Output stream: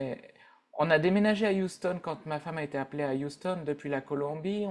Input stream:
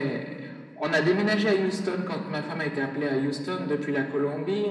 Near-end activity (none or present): none